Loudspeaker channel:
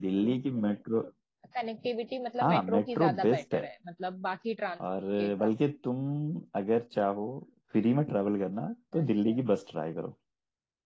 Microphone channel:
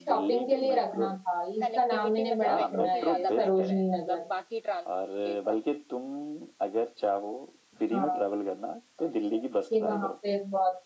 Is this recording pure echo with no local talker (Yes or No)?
No